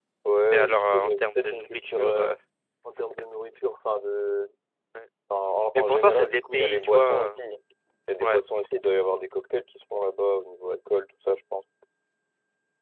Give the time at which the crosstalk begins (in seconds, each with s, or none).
0.5 s